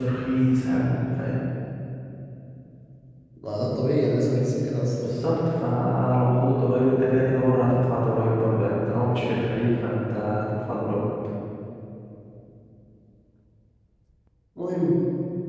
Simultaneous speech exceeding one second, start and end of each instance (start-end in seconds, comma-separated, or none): none